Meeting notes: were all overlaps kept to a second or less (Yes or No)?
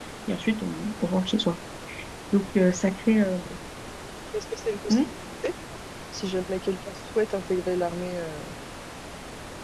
Yes